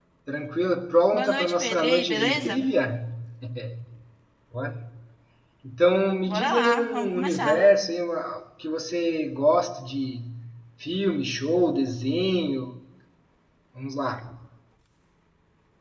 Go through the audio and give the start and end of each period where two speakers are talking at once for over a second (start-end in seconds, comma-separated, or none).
1.1-2.6, 6.3-7.6